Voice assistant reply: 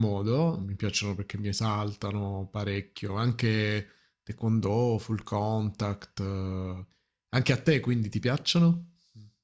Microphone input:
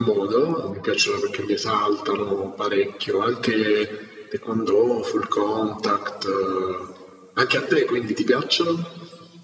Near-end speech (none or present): none